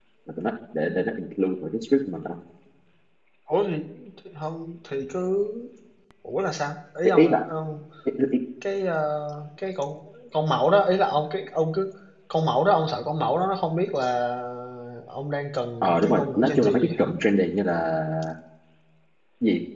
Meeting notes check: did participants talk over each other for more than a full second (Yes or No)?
Yes